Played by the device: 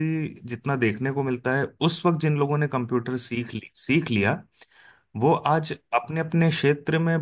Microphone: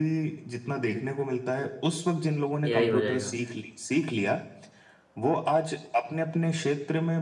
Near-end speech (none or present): present